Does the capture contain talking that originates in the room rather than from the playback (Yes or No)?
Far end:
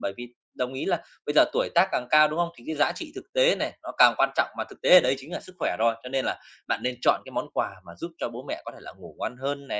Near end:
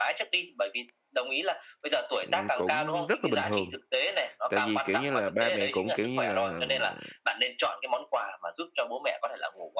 Yes